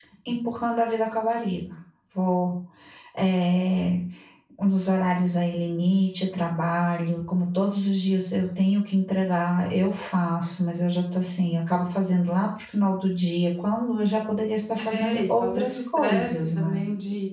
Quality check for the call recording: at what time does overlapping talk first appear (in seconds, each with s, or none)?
14.8 s